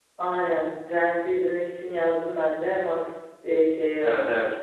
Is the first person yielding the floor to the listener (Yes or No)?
Yes